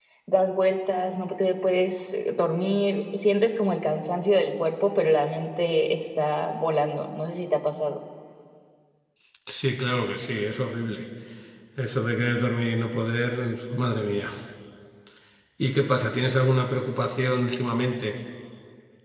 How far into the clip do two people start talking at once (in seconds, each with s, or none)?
none